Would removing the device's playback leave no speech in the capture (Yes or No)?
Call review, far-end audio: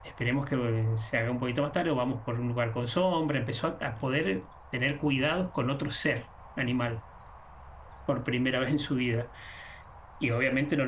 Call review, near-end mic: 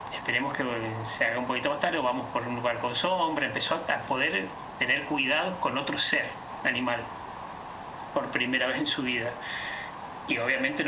Yes